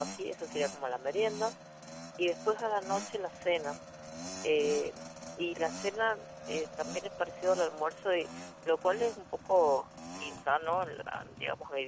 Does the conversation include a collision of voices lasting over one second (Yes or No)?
No